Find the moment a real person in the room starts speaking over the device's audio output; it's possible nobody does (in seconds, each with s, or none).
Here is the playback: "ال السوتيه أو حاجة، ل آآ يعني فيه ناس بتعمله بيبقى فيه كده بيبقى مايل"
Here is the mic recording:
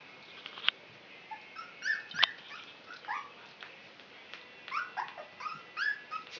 none